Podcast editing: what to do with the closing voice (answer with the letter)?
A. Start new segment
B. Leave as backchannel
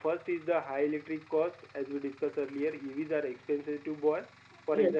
B